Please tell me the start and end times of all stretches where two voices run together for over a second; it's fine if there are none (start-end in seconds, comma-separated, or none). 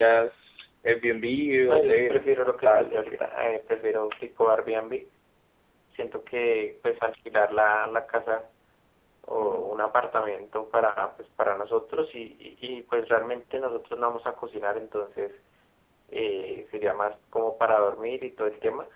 1.7-3.0